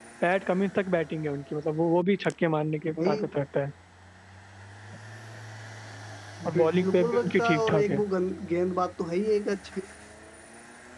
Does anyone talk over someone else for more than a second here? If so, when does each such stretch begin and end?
6.5-8.0

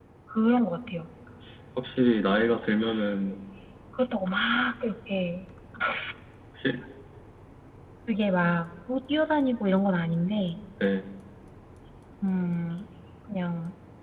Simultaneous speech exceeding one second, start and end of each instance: none

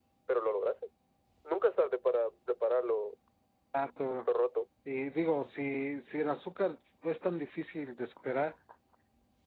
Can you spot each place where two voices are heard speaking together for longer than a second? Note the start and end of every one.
none

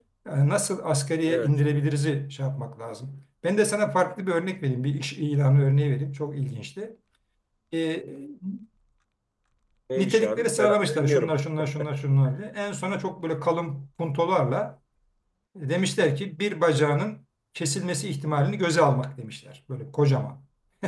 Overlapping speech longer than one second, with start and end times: 10.0-11.3

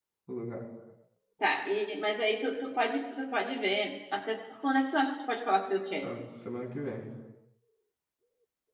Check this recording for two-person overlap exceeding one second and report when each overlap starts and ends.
none

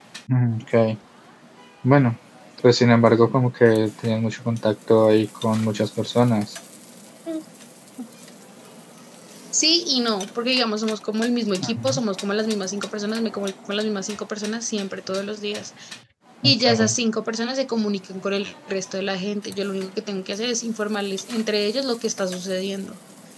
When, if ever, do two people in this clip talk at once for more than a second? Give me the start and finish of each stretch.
none

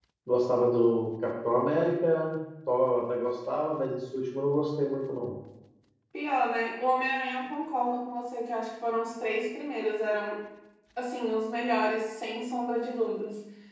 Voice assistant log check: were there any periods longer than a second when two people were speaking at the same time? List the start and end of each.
none

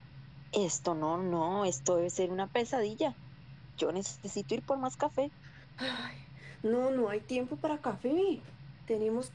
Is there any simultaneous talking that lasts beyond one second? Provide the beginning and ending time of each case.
none

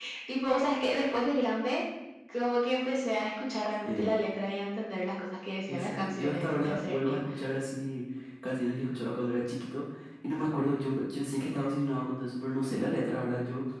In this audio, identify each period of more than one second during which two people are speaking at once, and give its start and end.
5.7-7.2

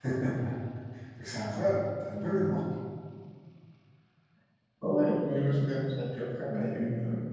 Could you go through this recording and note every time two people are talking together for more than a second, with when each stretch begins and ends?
none

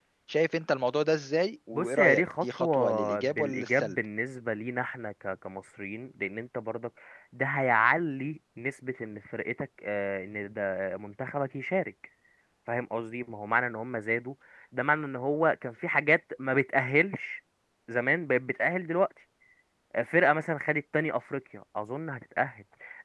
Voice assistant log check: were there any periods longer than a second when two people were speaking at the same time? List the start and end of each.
1.7-4.0

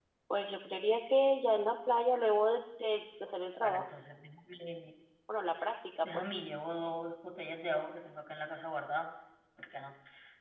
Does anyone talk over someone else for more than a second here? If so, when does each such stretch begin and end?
none

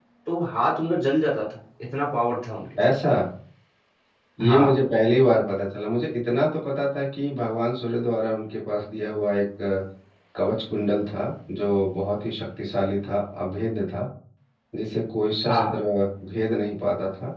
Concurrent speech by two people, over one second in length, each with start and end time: none

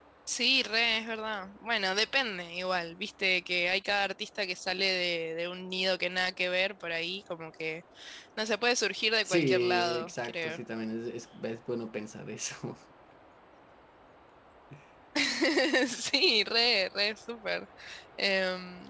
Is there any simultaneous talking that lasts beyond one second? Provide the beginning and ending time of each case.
9.3-10.6

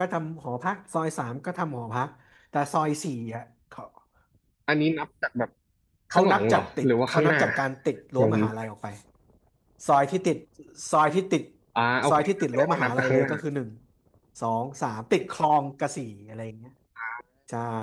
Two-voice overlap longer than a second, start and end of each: 6.1-7.4, 12.1-13.3

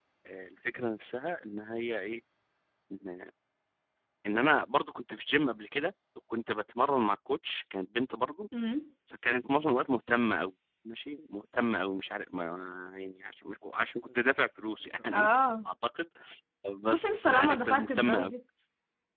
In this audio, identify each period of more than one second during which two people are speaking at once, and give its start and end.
16.9-18.3

